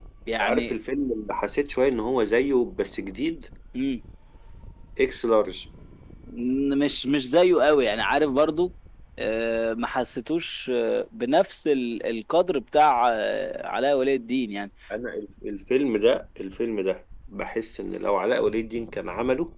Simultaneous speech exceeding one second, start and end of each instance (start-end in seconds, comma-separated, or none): none